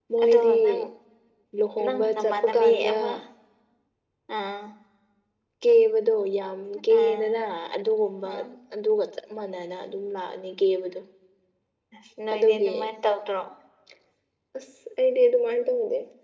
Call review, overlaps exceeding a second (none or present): present